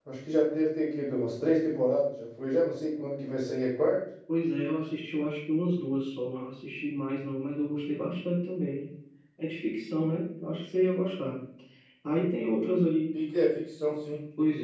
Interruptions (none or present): none